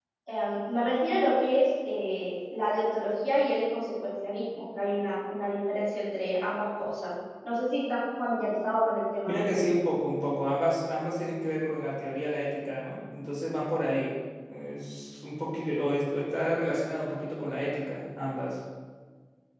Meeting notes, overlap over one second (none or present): none